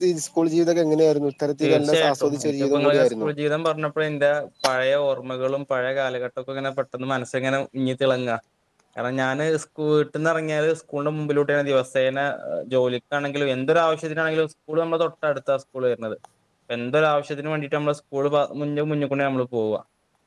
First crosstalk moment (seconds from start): 1.6 s

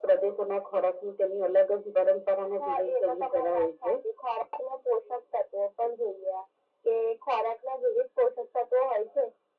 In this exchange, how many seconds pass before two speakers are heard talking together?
2.6 s

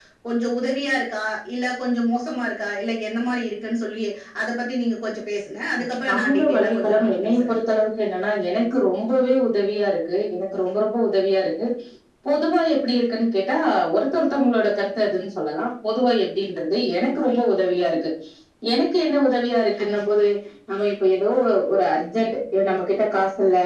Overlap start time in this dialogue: 6.1 s

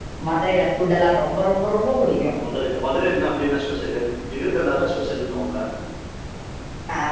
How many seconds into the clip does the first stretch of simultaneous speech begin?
none

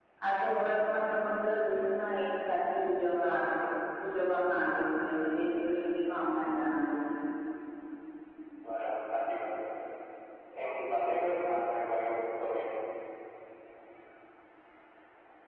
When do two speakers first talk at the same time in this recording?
none

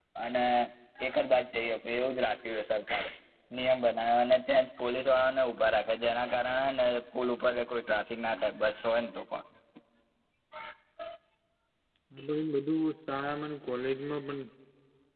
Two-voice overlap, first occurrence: none

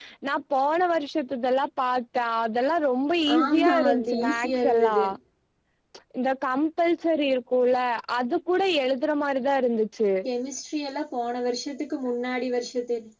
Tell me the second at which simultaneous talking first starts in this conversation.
3.2 s

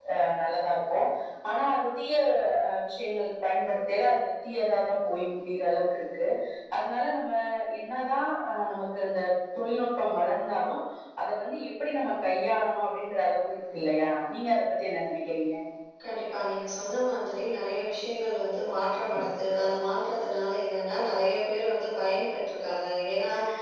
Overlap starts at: none

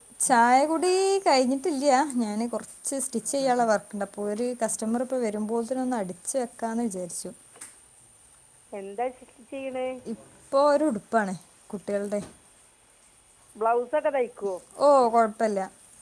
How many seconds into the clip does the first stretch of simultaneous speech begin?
none

